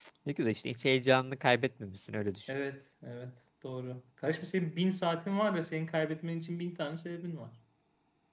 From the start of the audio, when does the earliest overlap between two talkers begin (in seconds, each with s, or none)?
none